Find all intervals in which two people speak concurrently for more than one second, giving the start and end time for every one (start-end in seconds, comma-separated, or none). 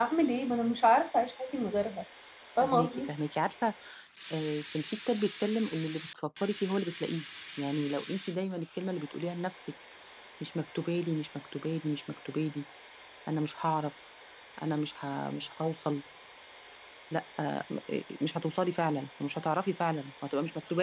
none